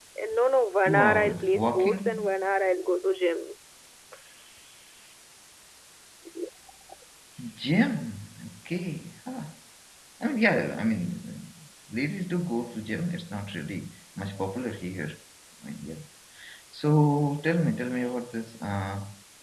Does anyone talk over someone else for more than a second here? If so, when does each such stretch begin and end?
0.8-2.3

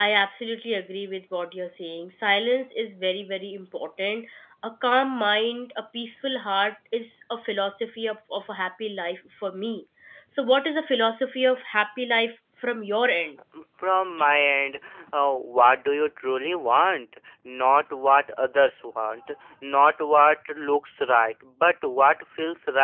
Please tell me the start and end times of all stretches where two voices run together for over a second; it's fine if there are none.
none

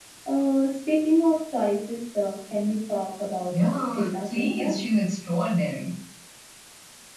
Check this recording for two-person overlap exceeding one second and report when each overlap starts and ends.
3.5-4.8

